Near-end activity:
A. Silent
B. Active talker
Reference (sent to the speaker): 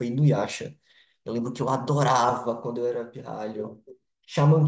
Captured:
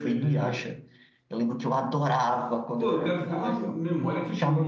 B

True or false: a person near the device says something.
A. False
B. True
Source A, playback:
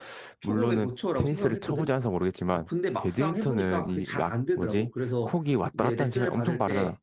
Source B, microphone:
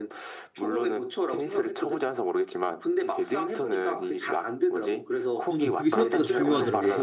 B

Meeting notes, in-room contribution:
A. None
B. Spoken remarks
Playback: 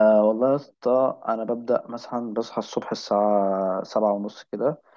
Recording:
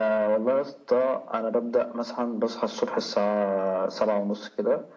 A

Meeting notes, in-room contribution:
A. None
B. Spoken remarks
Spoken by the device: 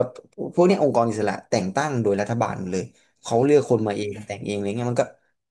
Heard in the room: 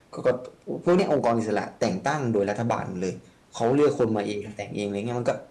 A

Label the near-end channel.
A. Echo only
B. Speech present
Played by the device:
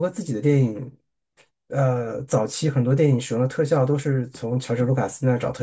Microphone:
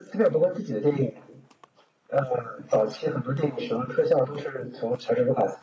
A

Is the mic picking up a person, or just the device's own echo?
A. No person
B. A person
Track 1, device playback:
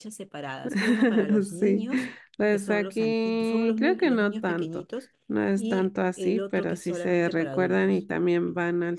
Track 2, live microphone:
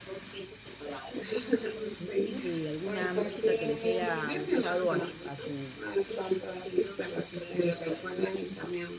B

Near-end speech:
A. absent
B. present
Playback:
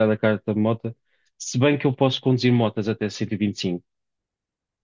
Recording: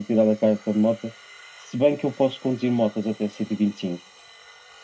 A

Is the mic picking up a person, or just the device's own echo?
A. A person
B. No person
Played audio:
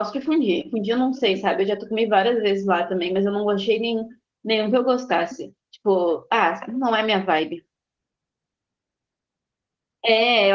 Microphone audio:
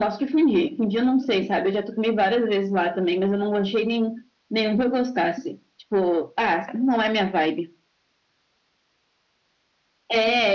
B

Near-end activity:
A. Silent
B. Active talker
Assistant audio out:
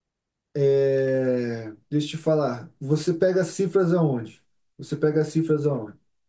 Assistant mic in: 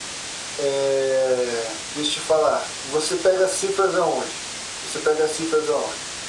A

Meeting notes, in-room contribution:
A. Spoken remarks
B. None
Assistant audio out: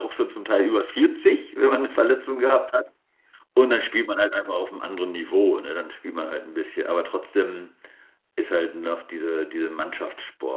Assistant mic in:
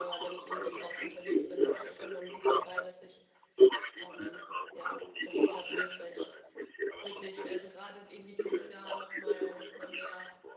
A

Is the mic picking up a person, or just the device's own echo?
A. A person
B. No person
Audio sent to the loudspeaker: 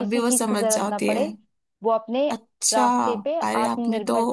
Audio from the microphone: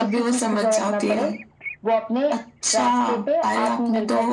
B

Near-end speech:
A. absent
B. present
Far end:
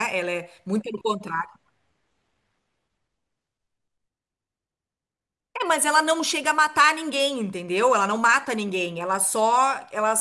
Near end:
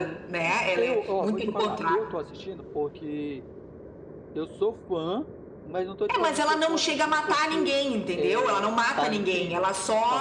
B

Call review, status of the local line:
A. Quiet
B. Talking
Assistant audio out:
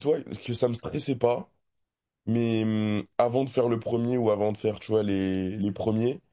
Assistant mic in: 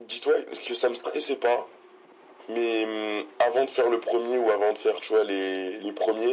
A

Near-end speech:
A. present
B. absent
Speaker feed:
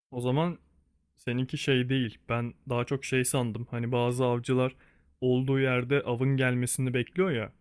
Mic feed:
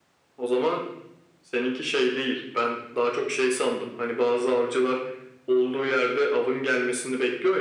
B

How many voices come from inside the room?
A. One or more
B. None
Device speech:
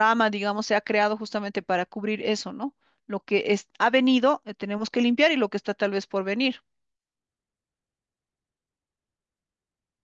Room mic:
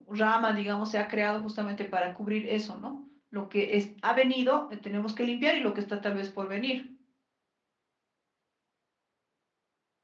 B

